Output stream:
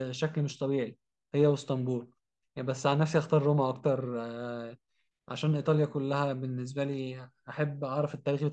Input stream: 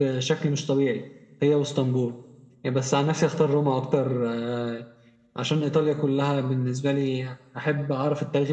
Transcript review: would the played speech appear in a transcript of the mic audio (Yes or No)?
Yes